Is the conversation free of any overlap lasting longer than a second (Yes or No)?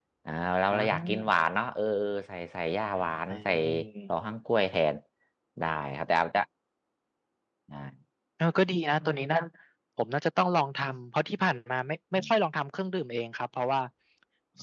Yes